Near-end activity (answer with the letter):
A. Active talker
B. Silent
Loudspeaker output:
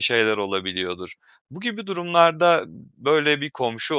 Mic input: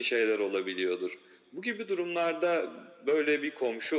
B